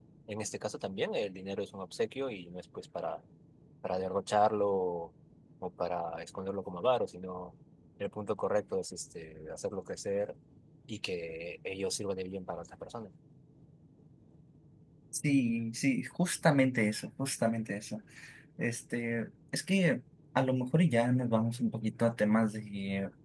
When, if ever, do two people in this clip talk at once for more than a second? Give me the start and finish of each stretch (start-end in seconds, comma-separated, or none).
none